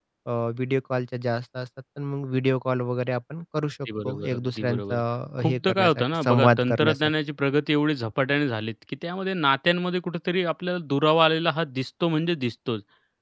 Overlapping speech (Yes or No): Yes